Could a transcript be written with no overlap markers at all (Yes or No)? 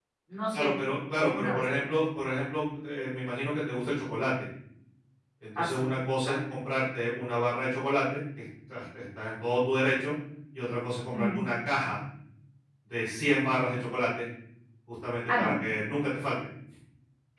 No